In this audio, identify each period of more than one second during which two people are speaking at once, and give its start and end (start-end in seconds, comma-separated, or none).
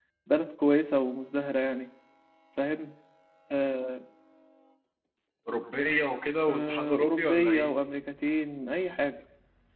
6.5-7.7